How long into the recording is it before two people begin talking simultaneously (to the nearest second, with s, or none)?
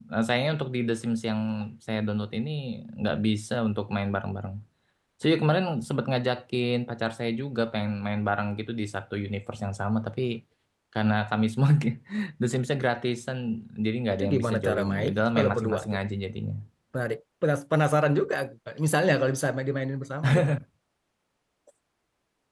14 s